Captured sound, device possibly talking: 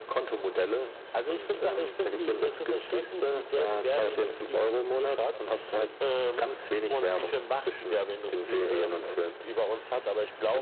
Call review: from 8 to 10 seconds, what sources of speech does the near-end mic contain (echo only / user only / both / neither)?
echo only